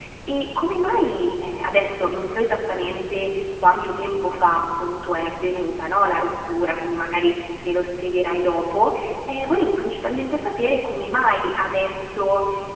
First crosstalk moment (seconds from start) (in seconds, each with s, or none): none